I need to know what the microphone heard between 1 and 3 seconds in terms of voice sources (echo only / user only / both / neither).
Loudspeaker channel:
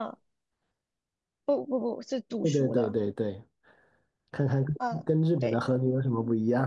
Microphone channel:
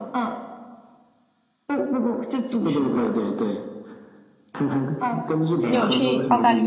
echo only